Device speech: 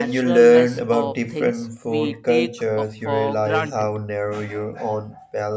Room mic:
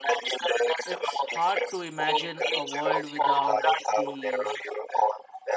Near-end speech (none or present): present